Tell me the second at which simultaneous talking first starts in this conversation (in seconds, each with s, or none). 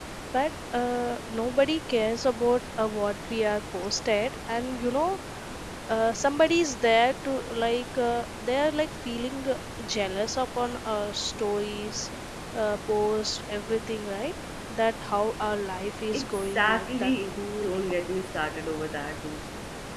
16.1 s